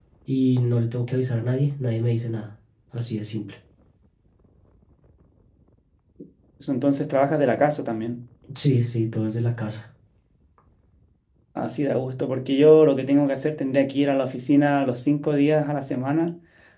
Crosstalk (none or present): none